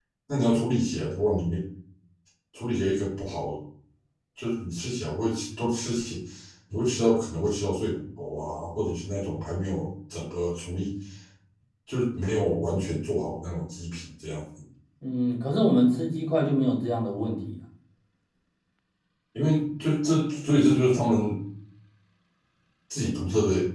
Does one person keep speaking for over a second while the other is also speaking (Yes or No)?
No